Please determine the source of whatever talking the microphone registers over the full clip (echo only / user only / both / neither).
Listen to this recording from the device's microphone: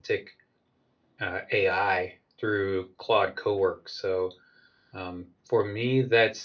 user only